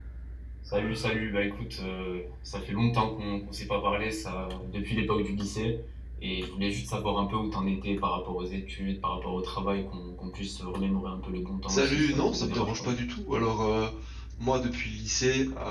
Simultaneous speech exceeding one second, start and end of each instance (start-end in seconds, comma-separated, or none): 11.7-12.9